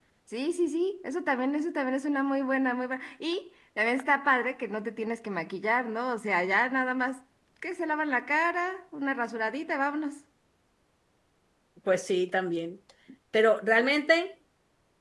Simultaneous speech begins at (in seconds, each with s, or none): none